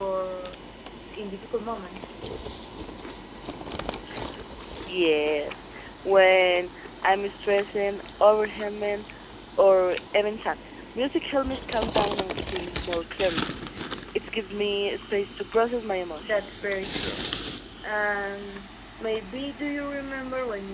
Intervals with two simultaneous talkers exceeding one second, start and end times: none

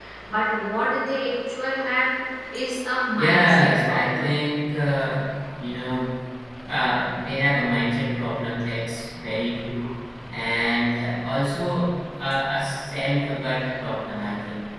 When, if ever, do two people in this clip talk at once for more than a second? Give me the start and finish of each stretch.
3.2-4.4

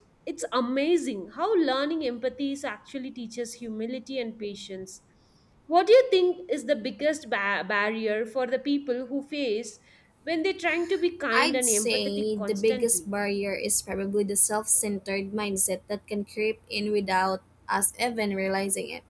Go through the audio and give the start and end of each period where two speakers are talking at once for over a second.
11.3-13.1

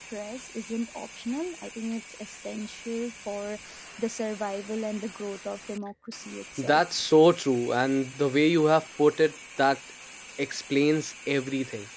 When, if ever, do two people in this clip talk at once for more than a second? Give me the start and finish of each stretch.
none

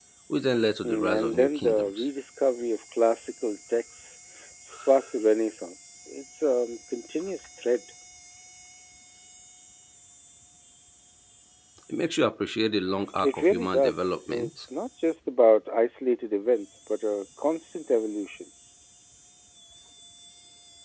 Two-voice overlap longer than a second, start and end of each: 0.8-2.1, 13.2-14.7

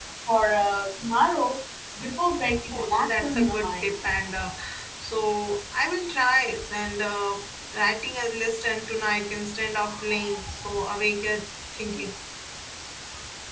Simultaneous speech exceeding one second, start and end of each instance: 2.7-3.9

